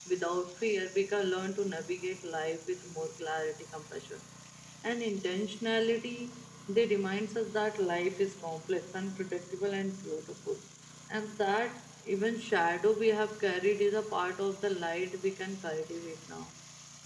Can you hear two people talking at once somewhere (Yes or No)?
No